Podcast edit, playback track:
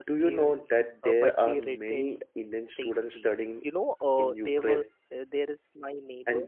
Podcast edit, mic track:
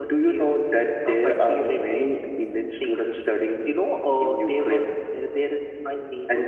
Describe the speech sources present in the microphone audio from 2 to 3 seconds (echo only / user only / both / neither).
echo only